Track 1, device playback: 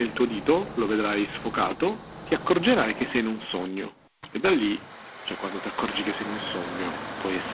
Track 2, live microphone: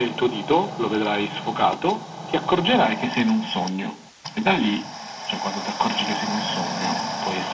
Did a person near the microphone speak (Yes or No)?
No